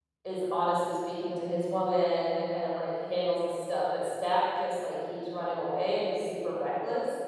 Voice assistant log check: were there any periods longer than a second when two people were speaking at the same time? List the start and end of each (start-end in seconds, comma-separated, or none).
none